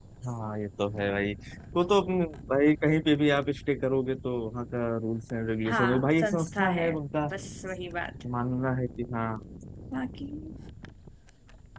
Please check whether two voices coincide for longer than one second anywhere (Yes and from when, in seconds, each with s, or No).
Yes, from 5.7 s